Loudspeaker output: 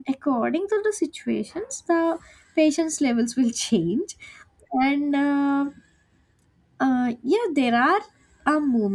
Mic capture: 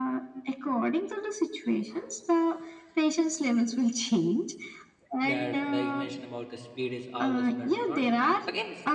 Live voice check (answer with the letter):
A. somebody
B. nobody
A